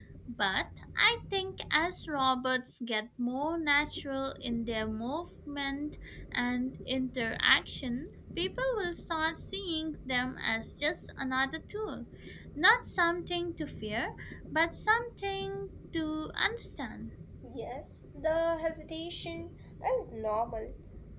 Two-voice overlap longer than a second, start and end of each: none

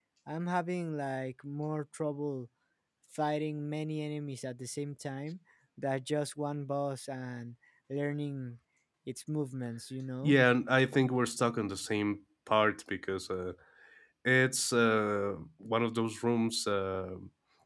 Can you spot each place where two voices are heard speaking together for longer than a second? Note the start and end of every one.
none

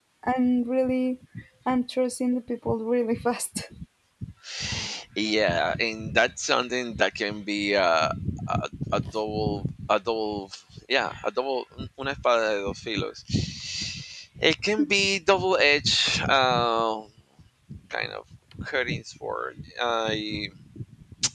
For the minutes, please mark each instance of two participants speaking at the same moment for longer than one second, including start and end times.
none

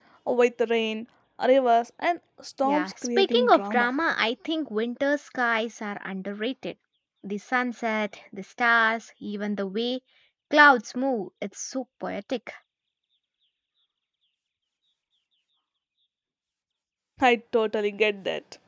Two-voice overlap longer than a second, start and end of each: 2.6-3.9

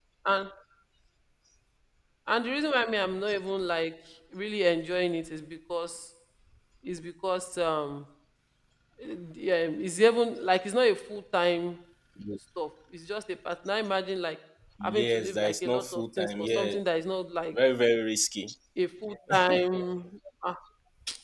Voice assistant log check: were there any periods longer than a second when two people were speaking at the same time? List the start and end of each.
14.9-16.8

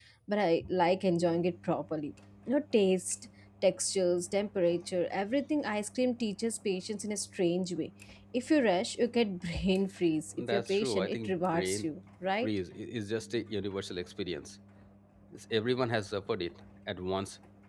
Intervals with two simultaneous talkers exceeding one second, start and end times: 10.3-11.9

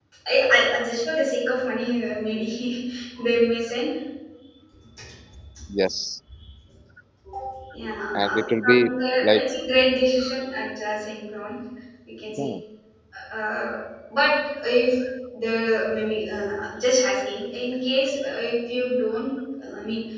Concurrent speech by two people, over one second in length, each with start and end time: 8.2-9.4

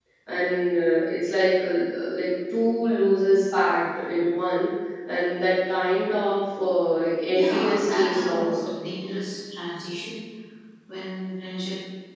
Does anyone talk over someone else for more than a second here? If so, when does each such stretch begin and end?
7.3-8.6

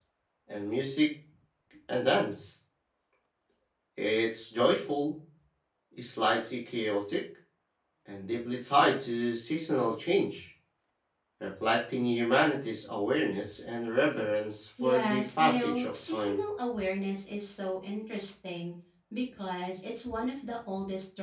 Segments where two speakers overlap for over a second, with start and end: 14.8-16.4

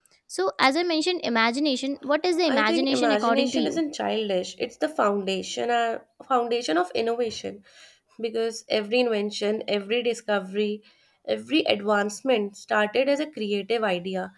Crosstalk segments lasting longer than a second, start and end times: 2.5-3.8

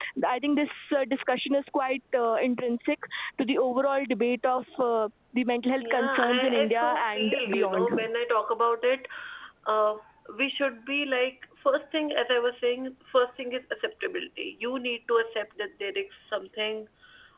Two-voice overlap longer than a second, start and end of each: 5.8-7.9

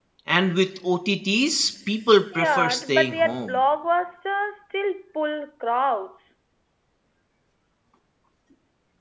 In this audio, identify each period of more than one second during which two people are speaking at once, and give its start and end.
2.4-3.6

